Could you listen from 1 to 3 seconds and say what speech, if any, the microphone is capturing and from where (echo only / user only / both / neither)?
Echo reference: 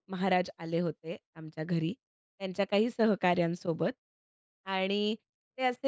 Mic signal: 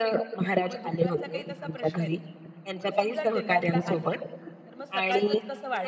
both